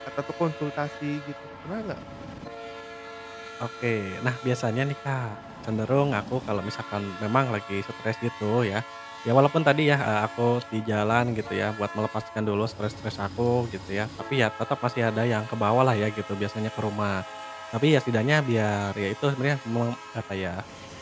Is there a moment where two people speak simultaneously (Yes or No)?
No